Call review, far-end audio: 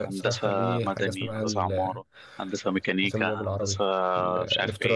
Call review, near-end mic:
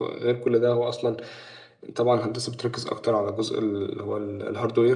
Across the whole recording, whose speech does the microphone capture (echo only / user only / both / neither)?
user only